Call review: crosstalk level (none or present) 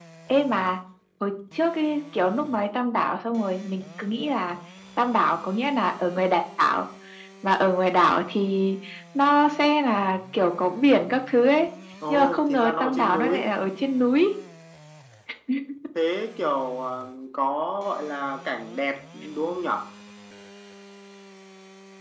present